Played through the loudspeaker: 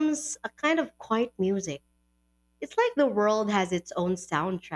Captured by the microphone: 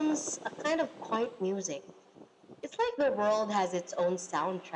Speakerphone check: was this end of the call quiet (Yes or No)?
Yes